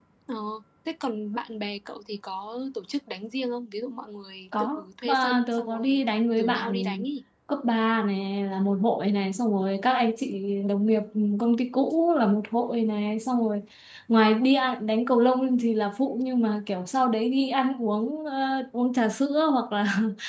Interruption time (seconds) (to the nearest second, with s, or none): 5 s